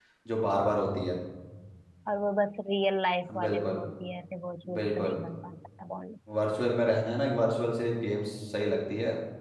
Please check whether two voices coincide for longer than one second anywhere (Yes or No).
No